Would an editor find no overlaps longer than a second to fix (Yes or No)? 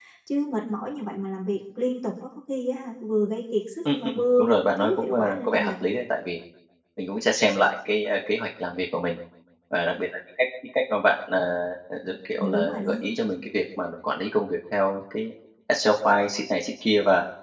No